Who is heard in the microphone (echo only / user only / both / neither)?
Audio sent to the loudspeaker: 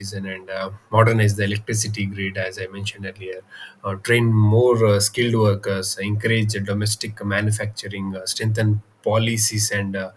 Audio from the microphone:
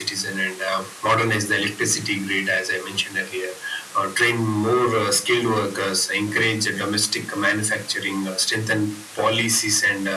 echo only